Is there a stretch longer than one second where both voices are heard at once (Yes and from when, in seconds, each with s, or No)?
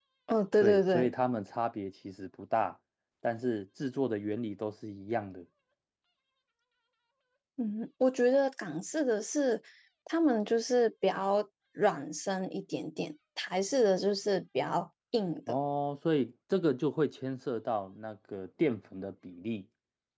No